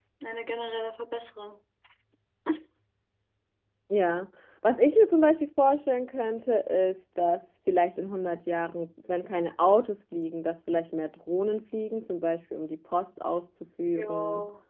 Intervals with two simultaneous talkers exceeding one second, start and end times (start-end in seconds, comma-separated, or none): none